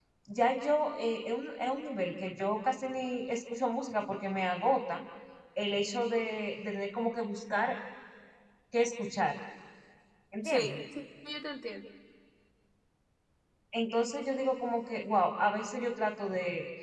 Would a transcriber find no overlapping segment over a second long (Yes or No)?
Yes